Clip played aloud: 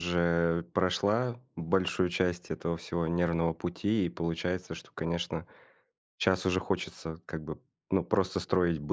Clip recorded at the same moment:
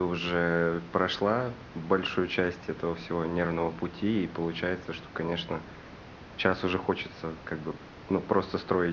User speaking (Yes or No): No